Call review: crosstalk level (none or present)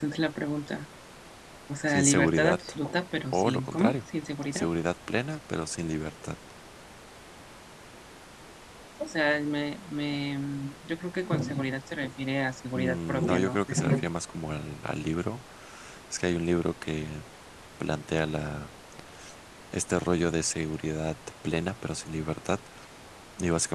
present